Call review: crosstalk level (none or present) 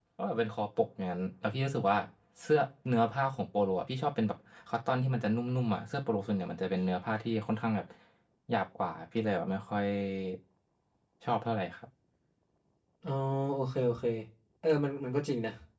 none